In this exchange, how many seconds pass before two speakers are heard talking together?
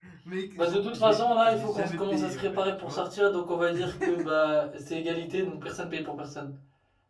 0.6 s

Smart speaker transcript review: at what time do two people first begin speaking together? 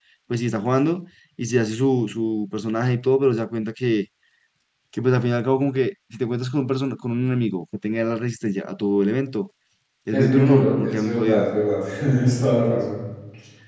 10.1 s

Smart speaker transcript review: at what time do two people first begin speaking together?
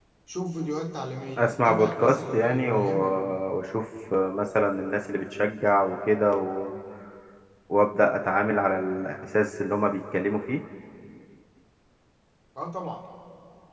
1.4 s

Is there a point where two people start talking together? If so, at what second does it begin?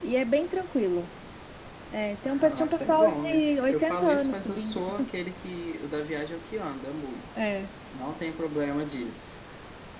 2.4 s

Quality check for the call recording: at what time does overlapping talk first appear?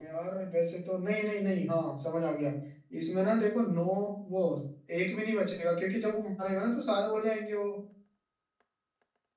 none

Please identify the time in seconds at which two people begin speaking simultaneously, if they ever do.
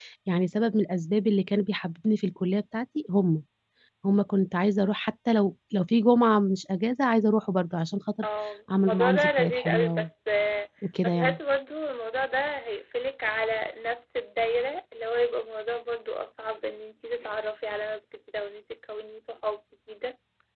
8.8 s

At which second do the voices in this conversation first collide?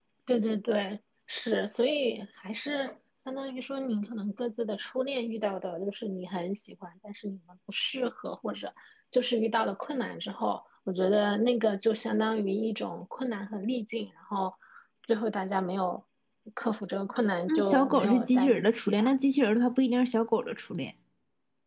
17.5 s

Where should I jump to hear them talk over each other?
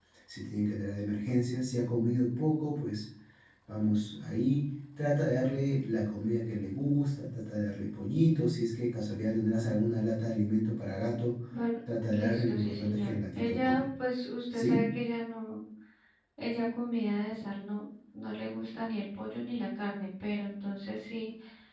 12.1 s

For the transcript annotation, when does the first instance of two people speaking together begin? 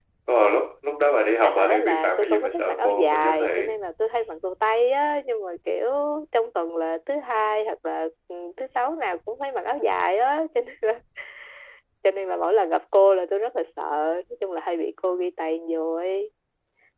1.4 s

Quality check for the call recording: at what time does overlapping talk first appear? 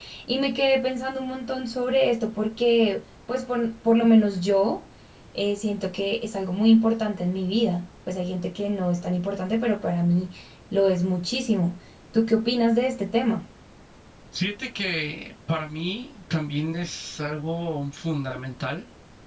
none

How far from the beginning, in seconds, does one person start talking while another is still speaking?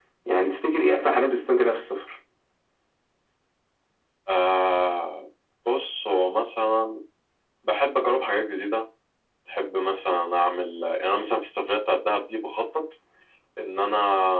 none

